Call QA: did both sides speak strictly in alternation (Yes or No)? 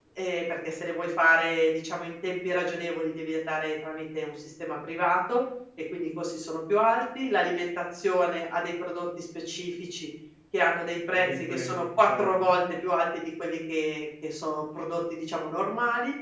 No